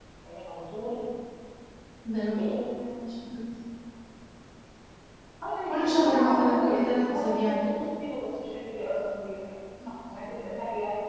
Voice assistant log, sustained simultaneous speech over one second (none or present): present